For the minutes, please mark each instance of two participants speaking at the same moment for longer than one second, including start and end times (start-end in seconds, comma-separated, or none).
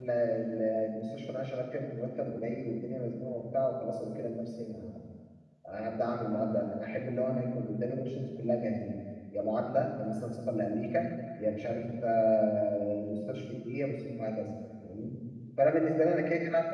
none